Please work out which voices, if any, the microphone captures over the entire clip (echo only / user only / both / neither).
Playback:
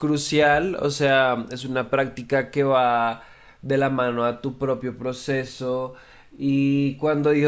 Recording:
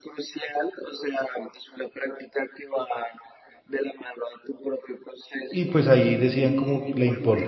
both